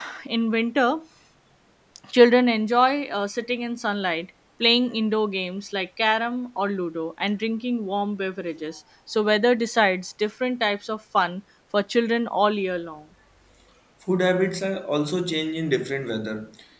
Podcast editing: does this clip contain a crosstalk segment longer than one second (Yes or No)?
No